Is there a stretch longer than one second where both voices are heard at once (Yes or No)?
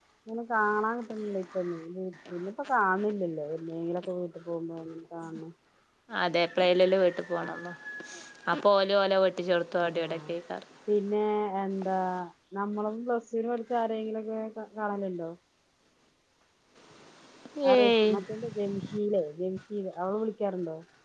No